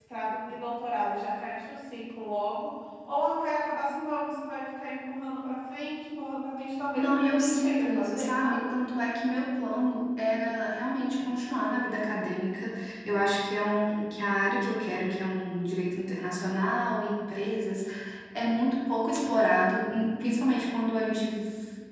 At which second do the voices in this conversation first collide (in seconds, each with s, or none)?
7.0 s